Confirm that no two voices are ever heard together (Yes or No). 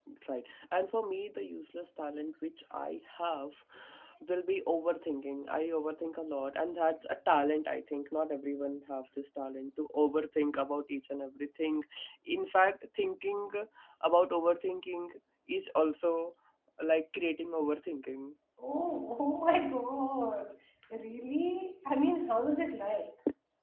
Yes